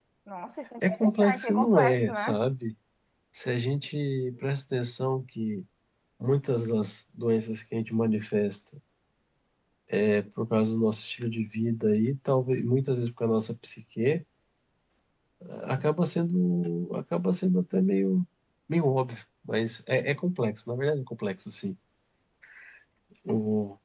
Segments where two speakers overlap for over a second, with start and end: 0.9-2.4

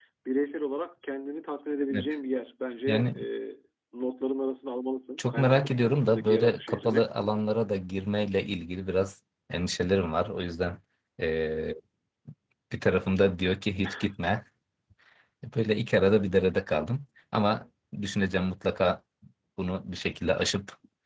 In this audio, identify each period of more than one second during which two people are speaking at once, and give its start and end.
5.2-7.0

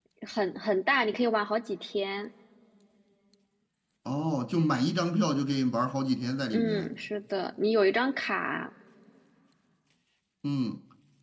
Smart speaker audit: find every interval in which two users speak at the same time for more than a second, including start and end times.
none

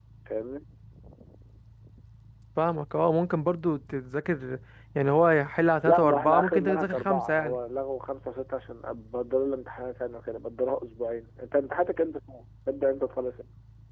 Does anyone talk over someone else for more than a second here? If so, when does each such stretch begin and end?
5.8-7.6

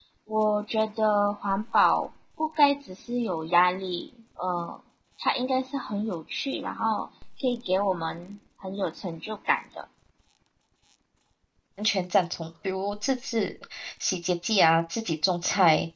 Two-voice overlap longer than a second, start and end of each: none

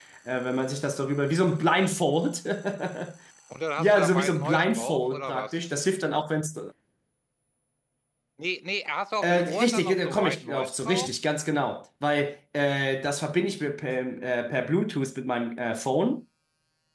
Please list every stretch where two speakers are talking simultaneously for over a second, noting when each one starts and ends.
3.8-5.6, 9.2-11.1

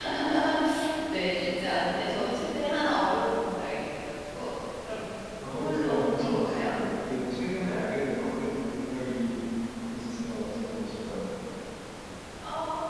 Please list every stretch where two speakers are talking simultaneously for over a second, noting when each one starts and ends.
5.4-6.7

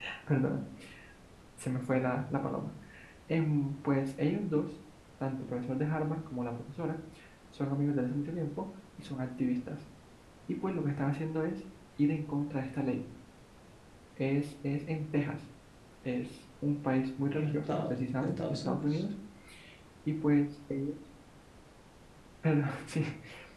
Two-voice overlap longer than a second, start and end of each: 17.3-19.0

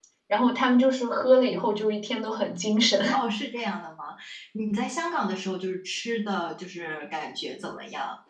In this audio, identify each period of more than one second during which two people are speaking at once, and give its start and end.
none

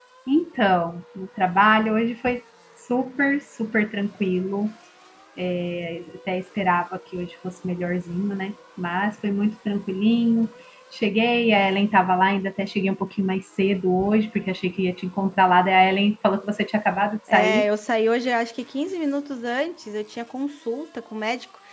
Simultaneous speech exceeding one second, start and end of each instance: none

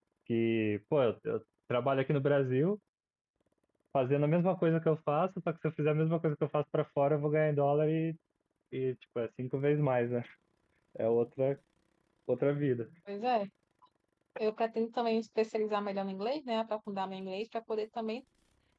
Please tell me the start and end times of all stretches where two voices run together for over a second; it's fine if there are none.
none

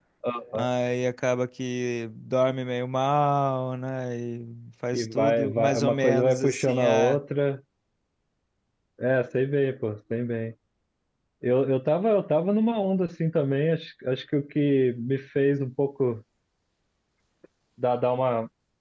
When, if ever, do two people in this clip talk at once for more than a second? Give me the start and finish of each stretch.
4.9-7.2

